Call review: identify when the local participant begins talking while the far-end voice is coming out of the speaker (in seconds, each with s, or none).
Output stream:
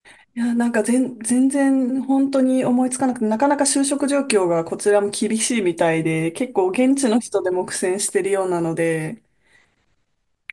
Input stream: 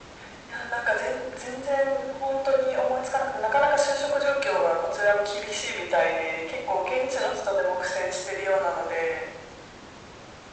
none